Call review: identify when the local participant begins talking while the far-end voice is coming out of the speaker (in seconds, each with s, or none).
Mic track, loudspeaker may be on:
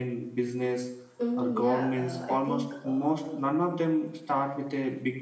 1.2 s